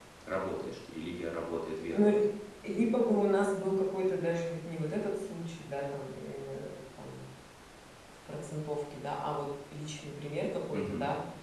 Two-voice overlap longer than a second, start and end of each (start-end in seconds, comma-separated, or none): none